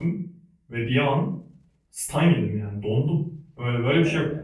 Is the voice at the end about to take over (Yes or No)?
No